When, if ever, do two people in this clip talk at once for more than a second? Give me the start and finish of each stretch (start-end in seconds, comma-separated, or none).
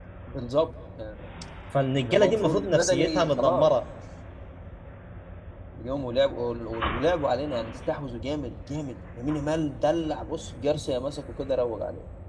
2.0-3.7